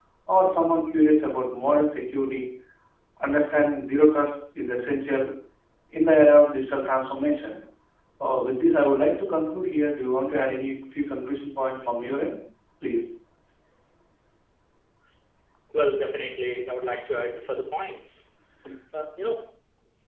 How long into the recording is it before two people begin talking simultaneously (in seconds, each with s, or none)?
none